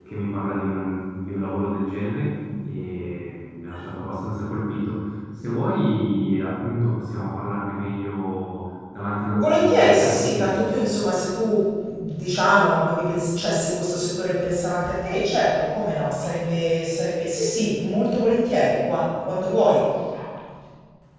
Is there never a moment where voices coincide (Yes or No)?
No